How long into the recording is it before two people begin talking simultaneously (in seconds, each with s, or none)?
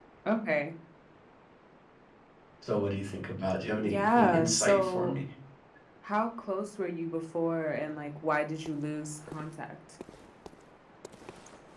3.8 s